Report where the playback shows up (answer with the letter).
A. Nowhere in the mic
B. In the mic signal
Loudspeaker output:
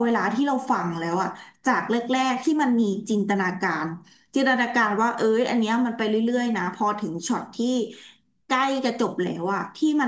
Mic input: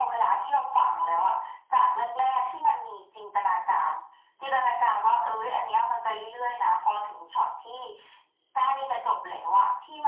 B